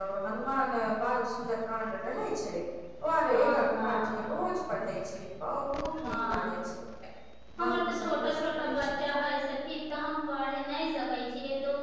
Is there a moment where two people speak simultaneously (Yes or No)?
Yes